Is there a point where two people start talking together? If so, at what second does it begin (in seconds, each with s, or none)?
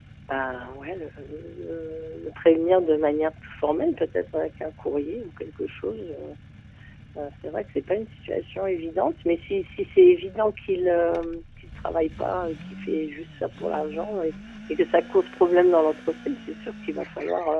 none